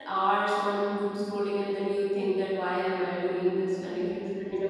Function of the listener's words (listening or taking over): taking over